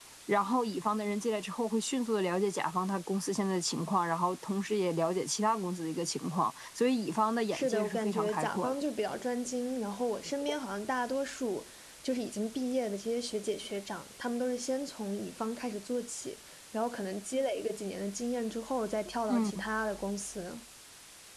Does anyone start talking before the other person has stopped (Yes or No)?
Yes